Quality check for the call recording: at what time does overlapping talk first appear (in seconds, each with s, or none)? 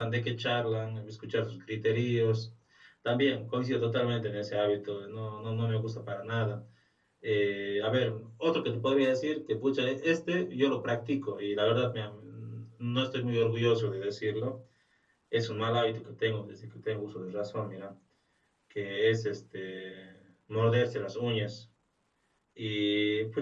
none